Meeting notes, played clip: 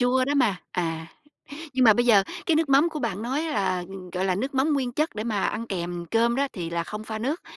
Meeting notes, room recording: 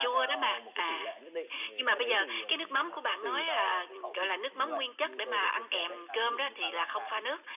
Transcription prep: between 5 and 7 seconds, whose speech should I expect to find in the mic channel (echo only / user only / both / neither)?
both